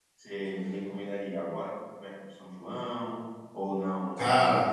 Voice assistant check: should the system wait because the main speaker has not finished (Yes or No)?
Yes